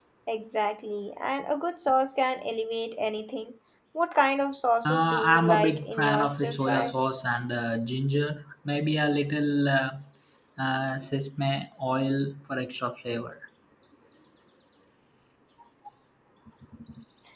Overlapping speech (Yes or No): Yes